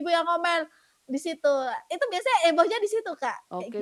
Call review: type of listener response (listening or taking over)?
taking over